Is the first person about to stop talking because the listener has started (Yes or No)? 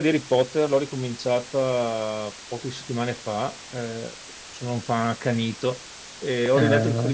No